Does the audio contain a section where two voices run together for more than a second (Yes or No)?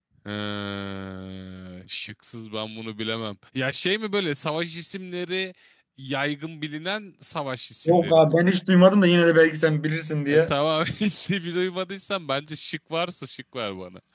No